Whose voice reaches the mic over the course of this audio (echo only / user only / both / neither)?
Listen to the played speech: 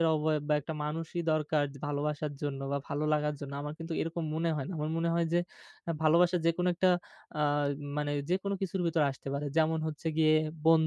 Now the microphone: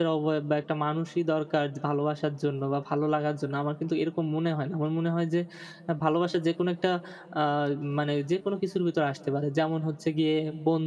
echo only